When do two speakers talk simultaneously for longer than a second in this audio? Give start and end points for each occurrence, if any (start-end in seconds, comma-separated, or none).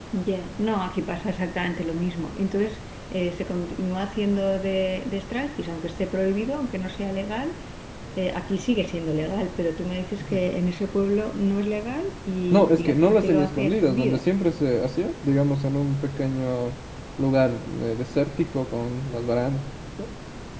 12.5-14.2